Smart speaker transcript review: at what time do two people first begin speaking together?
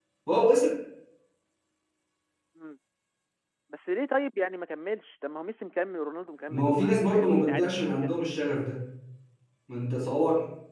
6.5 s

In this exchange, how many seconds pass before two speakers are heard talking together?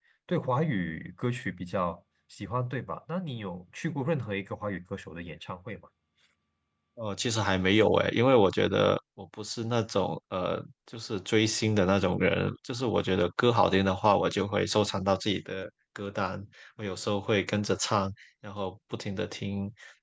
none

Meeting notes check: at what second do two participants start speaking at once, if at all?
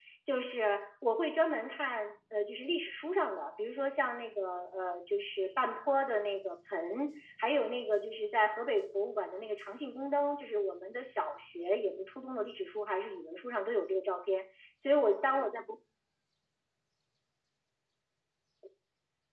none

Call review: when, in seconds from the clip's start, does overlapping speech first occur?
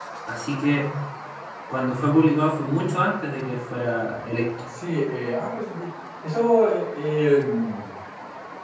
none

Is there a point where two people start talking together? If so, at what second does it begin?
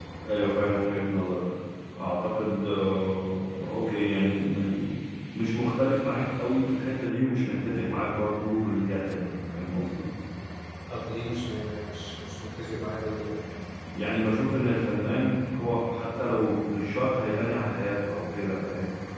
none

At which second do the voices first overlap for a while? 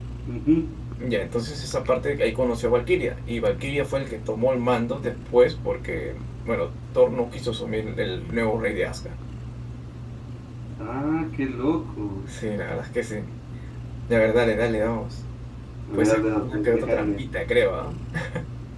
15.9 s

